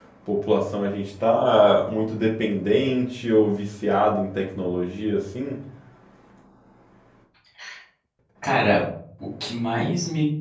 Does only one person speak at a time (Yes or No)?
Yes